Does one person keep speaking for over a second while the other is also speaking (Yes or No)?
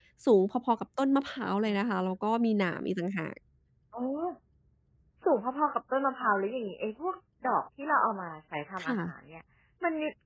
No